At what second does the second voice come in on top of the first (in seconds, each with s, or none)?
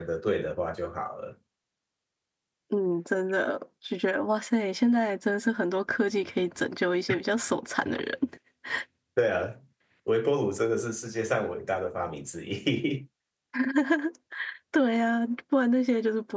none